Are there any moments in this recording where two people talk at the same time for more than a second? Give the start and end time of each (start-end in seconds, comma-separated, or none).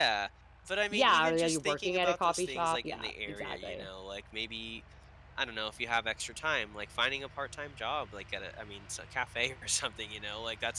0.9-3.9